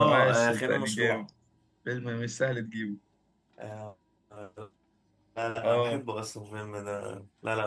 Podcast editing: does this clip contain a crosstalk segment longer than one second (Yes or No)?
Yes